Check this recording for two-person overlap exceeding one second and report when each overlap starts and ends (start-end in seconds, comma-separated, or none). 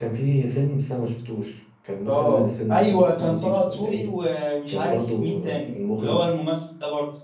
2.1-4.1, 4.7-6.3